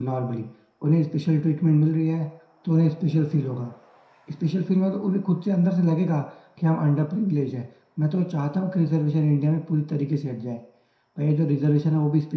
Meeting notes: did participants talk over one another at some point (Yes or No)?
No